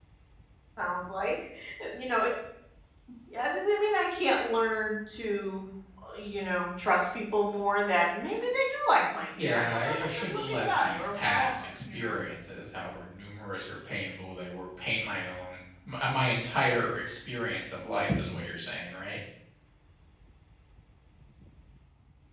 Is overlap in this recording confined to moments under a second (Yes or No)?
No